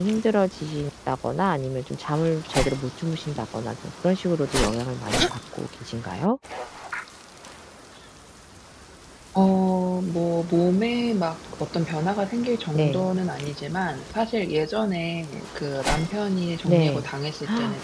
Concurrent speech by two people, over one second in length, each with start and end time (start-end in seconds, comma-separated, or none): none